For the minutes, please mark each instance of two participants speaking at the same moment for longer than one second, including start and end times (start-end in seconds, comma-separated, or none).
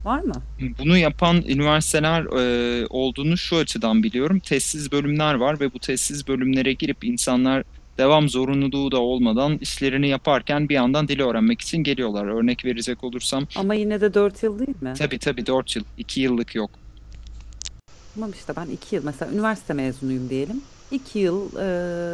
none